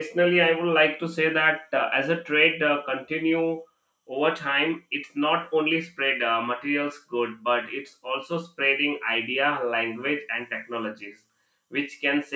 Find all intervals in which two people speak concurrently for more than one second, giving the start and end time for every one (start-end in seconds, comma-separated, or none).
none